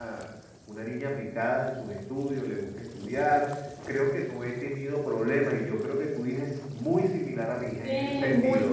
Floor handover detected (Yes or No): Yes